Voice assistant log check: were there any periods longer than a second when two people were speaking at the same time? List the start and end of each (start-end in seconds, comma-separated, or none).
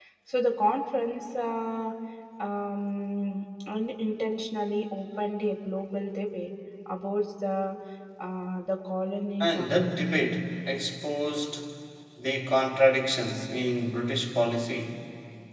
none